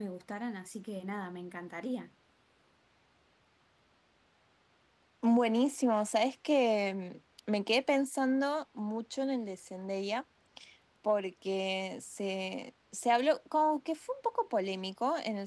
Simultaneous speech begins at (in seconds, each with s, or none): none